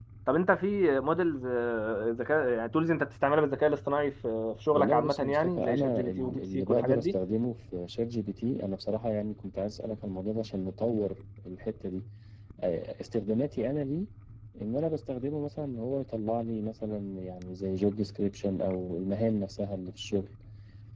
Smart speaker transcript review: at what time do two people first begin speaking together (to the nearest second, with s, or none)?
5 s